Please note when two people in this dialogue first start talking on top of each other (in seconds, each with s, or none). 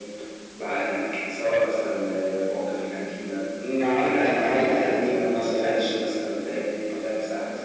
4.0 s